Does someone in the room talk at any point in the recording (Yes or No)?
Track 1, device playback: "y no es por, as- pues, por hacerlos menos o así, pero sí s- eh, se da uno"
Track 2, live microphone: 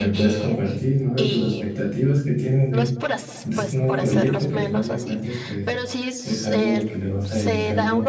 Yes